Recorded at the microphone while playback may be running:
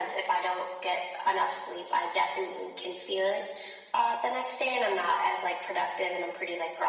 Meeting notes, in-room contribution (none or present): none